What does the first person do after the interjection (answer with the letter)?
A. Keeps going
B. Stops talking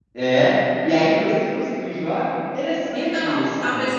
B